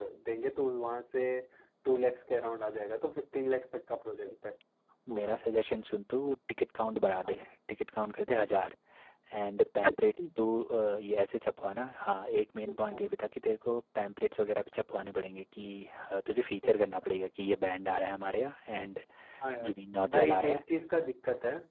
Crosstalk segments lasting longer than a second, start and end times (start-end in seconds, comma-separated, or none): none